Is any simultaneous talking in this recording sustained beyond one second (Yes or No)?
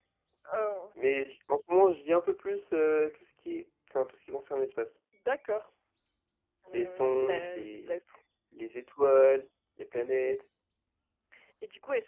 Yes